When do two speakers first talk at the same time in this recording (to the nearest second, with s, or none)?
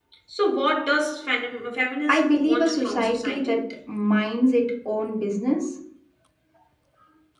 2 s